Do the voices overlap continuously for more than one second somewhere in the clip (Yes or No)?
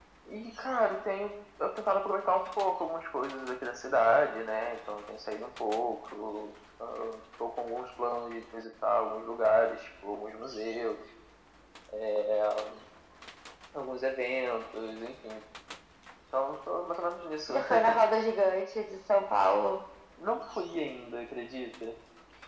No